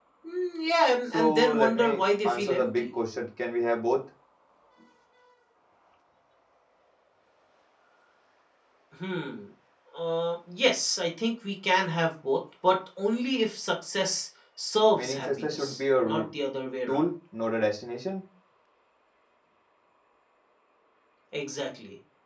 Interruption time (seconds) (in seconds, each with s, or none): 1.1 s